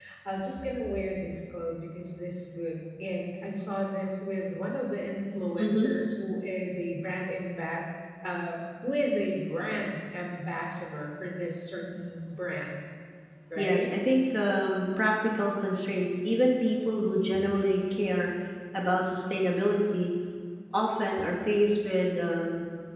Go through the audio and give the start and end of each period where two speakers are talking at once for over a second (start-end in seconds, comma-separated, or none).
none